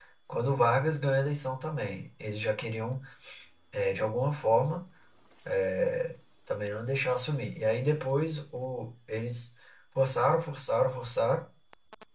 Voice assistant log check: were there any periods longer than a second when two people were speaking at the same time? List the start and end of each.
none

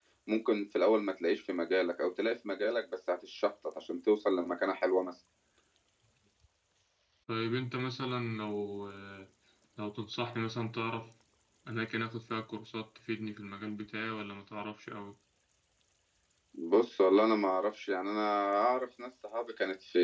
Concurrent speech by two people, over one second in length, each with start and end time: none

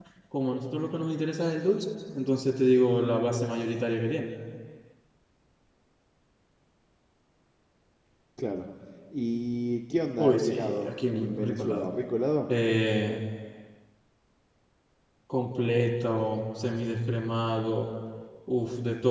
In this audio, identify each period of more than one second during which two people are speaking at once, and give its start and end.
10.2-11.9

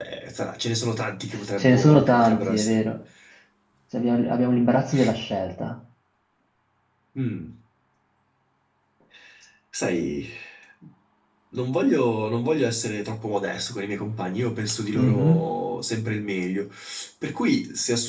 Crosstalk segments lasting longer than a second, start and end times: 1.6-2.8

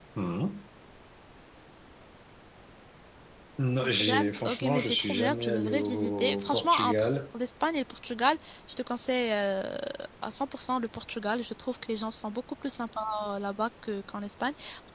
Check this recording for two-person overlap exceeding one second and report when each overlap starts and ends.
4.0-7.1

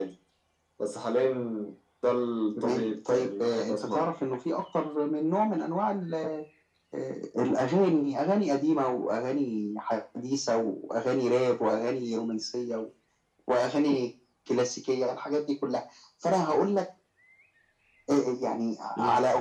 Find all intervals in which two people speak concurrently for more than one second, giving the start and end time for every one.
2.6-4.1

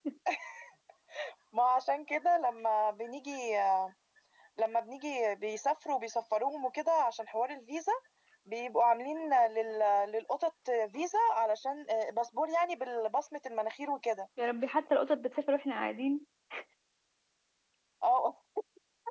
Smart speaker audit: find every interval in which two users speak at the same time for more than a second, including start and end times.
none

